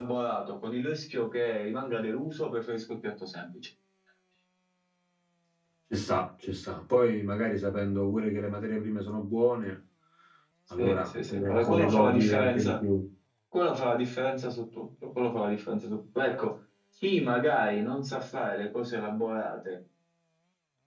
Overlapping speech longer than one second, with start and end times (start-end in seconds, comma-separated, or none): 10.8-12.7